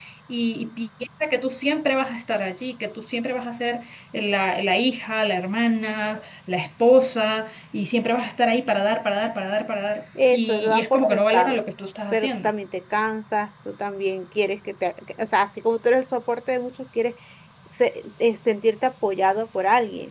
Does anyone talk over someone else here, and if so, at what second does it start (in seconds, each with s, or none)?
10.3 s